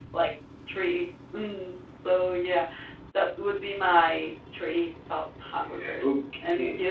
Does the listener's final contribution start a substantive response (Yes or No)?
Yes